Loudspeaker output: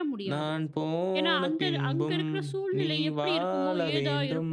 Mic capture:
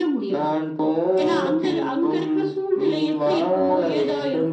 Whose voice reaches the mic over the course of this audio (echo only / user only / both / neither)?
echo only